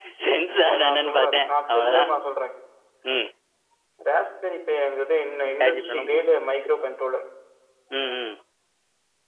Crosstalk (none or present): present